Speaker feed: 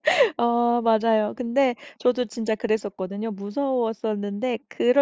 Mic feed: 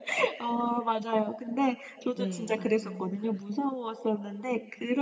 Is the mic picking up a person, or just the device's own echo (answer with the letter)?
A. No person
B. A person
B